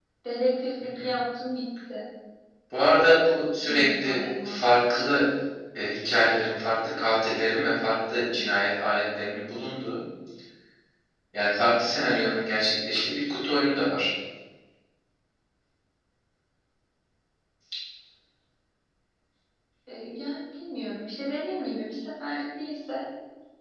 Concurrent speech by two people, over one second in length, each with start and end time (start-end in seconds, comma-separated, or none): 3.6-5.2